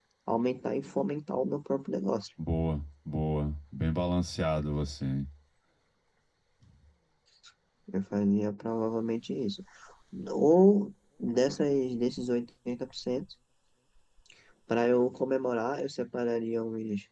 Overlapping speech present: No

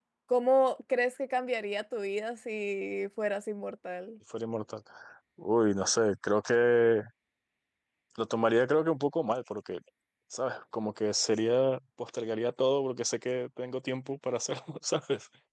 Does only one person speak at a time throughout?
Yes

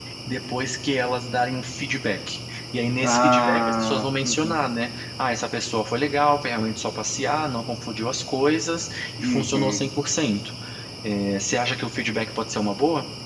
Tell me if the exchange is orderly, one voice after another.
No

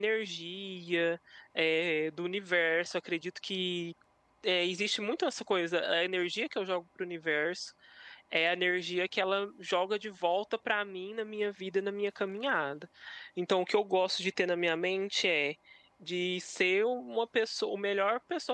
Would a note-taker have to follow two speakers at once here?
No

